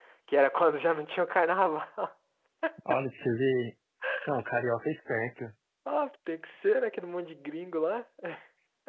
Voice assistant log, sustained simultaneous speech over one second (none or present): none